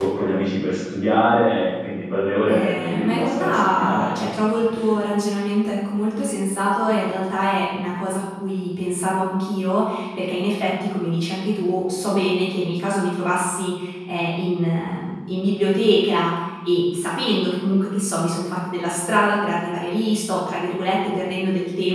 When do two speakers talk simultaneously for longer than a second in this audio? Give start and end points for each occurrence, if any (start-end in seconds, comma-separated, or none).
2.5-4.4